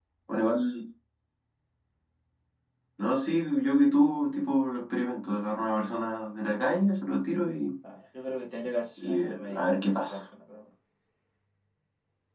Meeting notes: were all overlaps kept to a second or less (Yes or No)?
No